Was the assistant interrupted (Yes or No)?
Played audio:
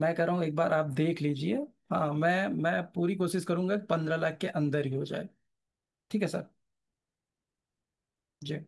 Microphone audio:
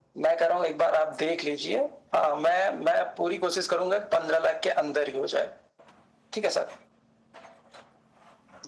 No